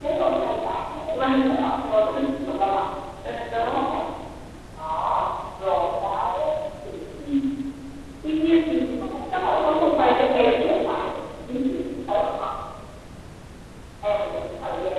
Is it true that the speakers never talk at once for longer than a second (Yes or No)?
No